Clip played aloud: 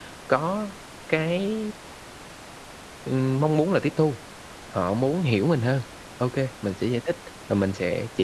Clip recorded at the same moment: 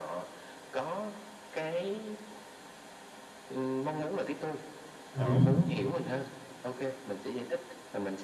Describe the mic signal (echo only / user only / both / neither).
both